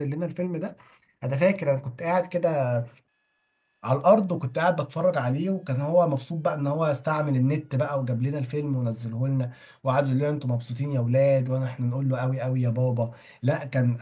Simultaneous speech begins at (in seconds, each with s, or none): none